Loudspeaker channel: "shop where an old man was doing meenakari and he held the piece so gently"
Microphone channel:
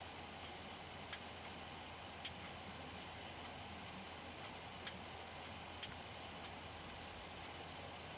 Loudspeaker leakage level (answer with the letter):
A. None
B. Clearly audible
A